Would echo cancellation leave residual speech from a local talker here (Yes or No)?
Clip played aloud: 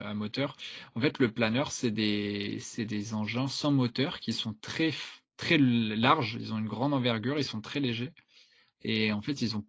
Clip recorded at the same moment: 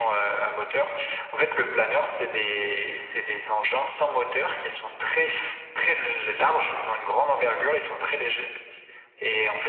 Yes